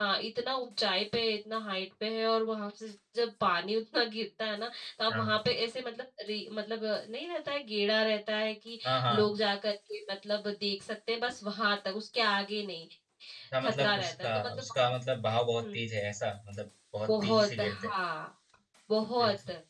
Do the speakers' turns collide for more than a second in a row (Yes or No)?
Yes